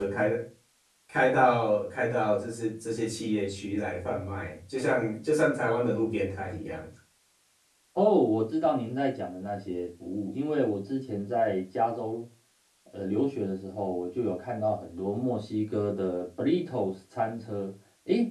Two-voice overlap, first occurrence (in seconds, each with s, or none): none